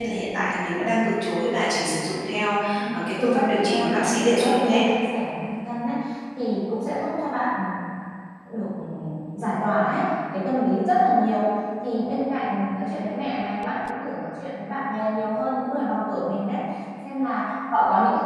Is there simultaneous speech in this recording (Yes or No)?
Yes